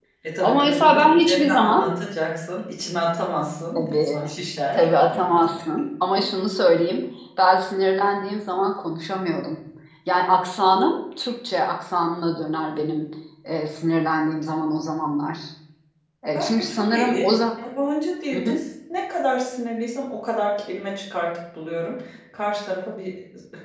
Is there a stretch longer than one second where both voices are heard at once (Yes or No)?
Yes